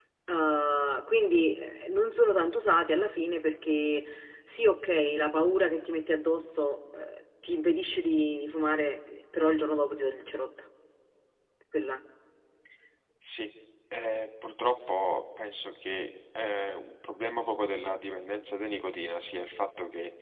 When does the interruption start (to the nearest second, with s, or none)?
none